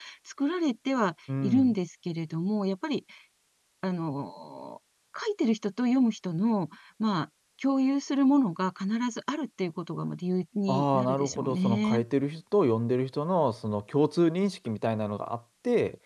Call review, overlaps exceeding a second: present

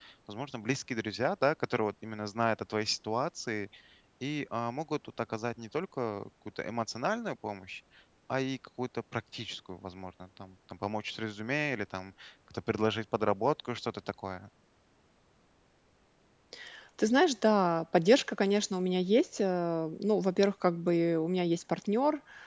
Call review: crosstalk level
none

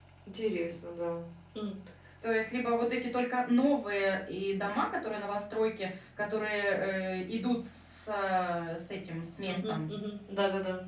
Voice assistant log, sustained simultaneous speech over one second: none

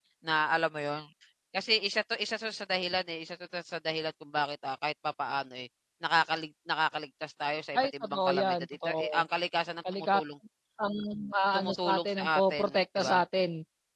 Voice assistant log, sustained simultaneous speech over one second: present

